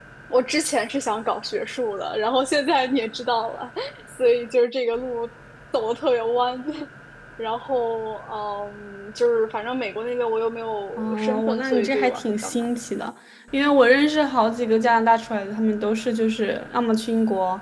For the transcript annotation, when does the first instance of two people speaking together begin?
11.0 s

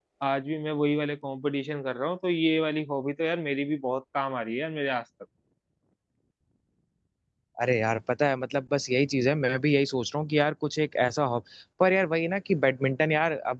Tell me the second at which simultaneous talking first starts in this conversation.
none

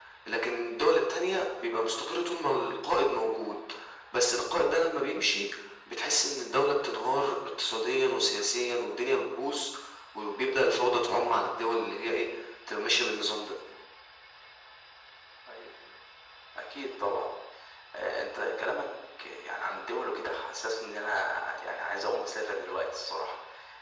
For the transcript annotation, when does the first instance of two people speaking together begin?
none

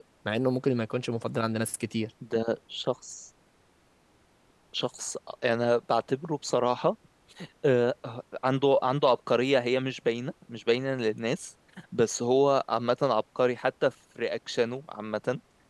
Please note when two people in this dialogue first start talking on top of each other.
none

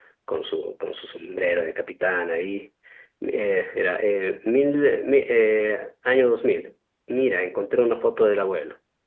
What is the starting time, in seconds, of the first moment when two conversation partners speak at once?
none

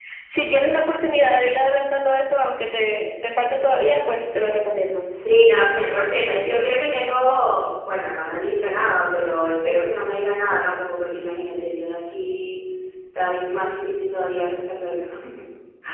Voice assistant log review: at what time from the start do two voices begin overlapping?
none

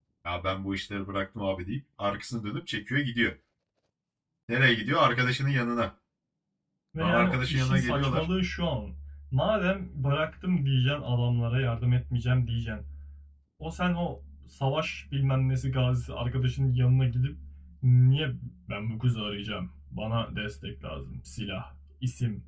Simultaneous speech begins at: 7.0 s

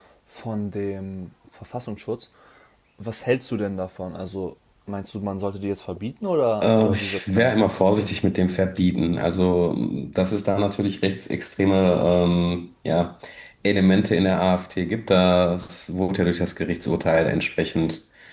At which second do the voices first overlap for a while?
6.6 s

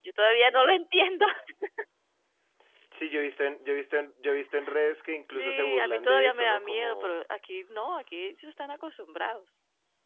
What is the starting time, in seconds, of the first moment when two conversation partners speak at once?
5.3 s

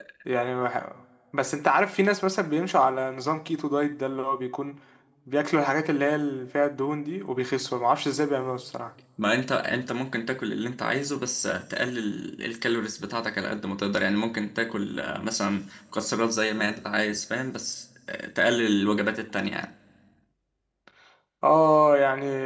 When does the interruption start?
none

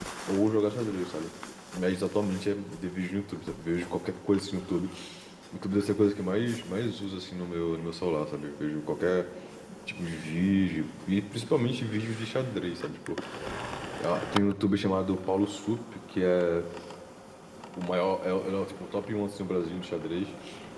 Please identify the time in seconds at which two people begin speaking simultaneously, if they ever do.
none

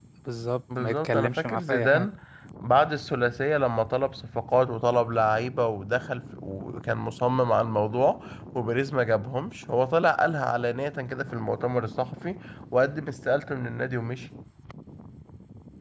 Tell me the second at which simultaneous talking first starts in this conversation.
0.8 s

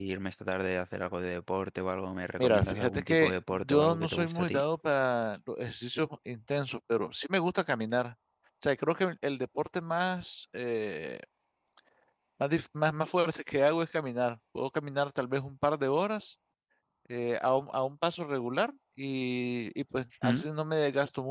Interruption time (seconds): 2.4 s

